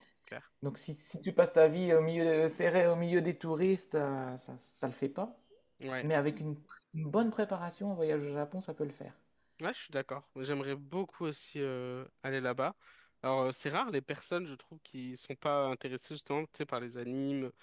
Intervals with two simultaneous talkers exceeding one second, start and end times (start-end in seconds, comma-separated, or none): none